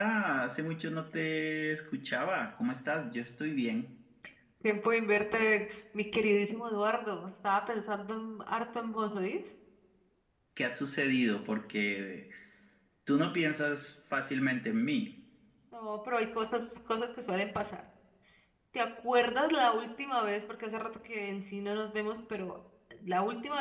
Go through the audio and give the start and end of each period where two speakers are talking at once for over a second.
none

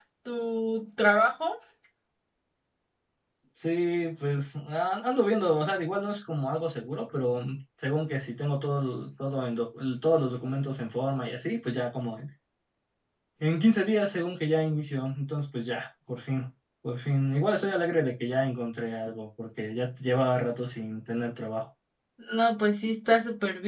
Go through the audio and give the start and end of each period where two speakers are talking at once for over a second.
none

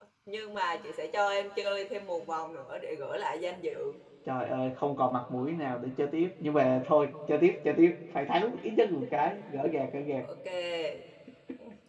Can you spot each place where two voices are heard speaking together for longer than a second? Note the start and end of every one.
none

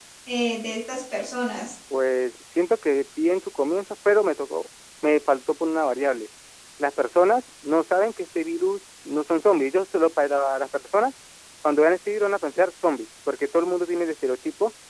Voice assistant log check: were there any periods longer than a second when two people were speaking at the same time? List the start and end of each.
none

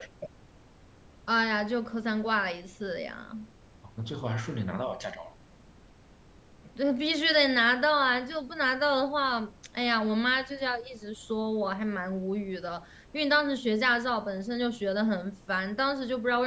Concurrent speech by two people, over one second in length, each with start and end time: none

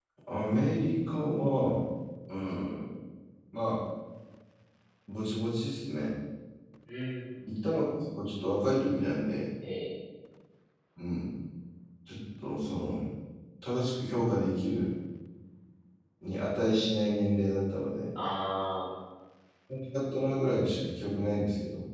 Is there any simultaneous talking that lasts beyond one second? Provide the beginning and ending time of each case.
none

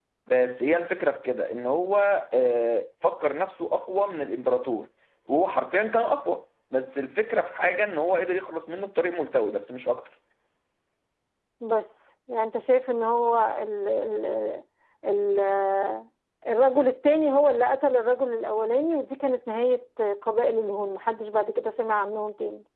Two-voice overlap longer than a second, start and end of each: none

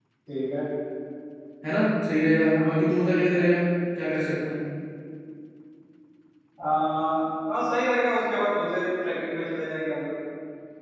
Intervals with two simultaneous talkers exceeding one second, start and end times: none

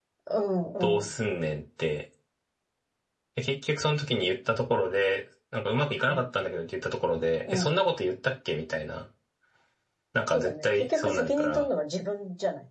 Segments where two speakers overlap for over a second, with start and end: 10.3-11.7

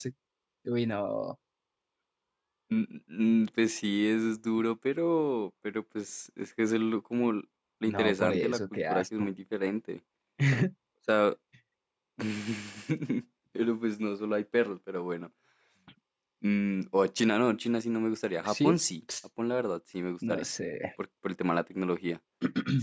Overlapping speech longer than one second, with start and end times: 7.9-9.3

